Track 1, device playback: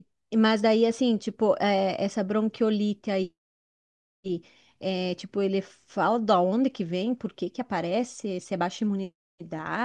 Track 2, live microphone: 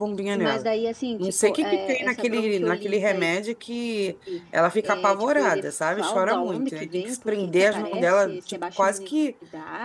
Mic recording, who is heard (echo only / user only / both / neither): both